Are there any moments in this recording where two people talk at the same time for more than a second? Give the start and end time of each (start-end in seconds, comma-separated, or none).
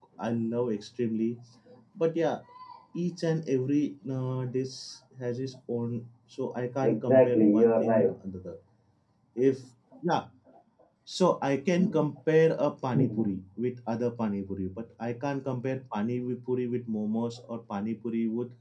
6.8-8.1